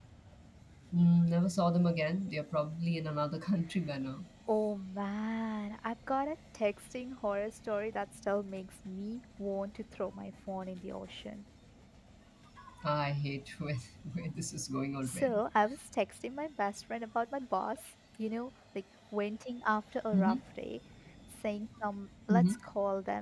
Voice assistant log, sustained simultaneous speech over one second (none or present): none